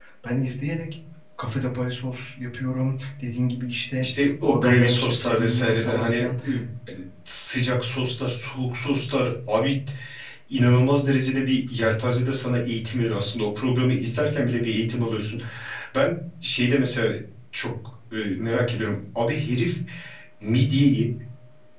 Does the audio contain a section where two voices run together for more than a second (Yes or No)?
Yes